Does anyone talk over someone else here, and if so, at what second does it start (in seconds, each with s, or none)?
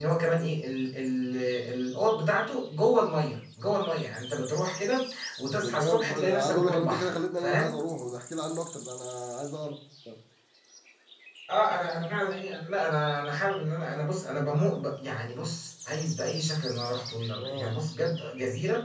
5.6 s